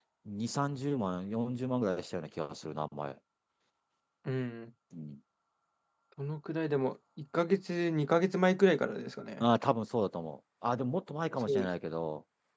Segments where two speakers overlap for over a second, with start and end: none

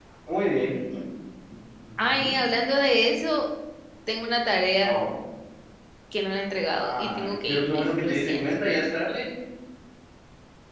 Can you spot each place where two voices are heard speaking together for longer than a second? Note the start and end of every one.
6.8-8.4

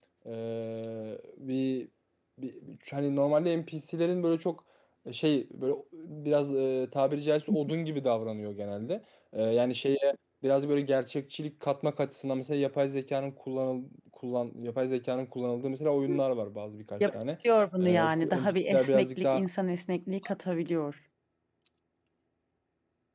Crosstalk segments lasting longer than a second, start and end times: 17.8-19.4

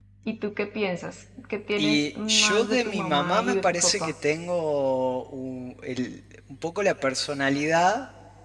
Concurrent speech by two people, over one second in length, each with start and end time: 1.8-4.1

